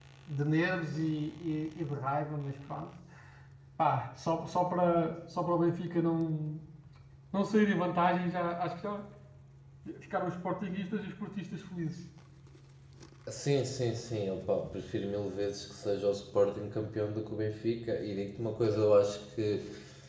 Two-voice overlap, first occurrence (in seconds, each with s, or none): none